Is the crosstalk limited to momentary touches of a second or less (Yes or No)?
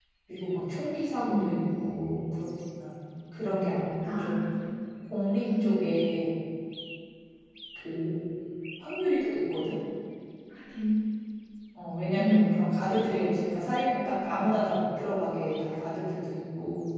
No